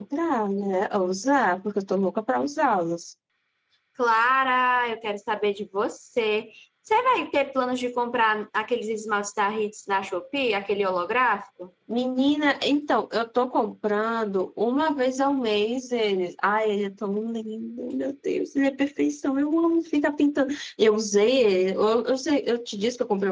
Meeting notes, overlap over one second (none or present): none